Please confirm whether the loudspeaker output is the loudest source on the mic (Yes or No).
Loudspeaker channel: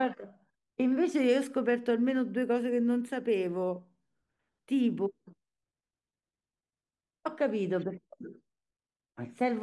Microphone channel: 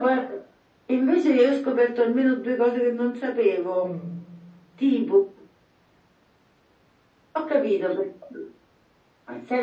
Yes